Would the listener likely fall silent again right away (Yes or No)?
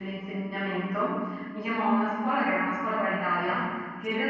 Yes